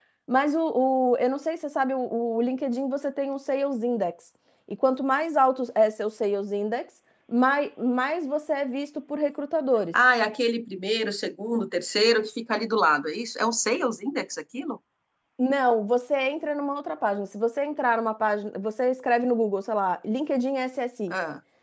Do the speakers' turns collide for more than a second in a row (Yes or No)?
No